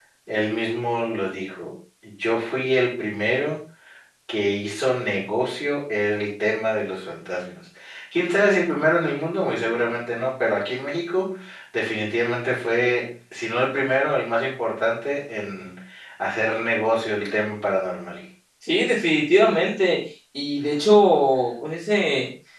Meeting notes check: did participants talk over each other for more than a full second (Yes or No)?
No